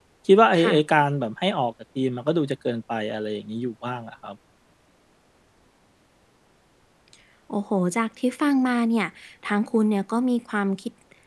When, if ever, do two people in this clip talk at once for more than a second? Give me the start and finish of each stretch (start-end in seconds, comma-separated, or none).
none